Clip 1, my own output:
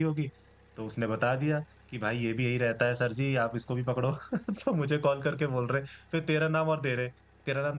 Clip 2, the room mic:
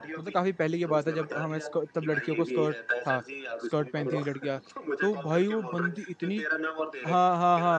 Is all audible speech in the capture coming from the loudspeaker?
No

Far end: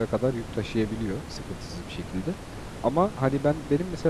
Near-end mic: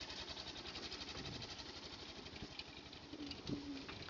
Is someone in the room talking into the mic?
No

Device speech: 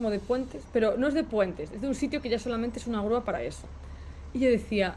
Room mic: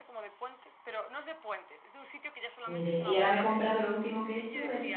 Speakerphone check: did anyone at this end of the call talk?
Yes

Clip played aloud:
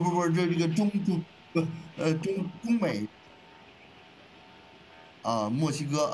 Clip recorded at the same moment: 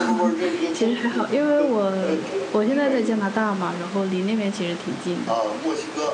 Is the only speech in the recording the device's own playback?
No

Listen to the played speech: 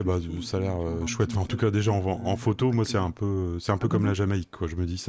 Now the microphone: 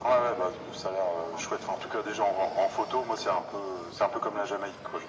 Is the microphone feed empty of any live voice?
Yes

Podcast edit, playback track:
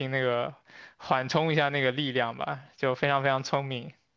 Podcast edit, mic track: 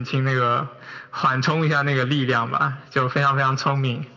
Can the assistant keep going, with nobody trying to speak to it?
Yes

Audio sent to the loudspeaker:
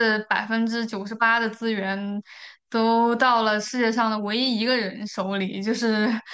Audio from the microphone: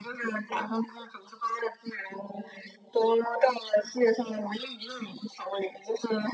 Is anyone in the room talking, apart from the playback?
No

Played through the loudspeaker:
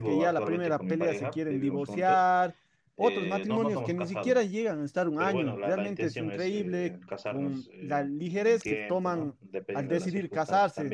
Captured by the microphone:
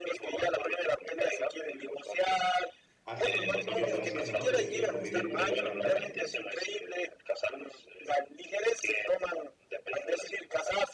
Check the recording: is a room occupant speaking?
Yes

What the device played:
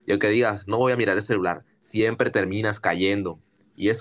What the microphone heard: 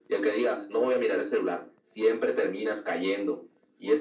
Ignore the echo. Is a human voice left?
No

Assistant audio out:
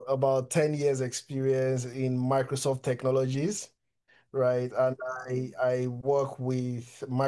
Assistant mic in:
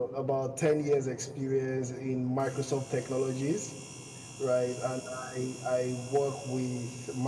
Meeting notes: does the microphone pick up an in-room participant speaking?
No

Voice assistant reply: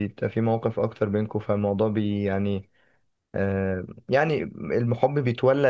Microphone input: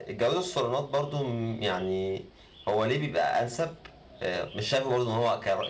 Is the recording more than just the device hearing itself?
Yes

